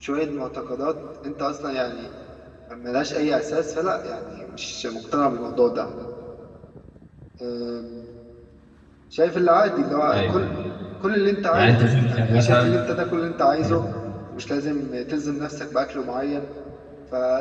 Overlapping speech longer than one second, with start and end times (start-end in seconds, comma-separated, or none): 11.5-12.8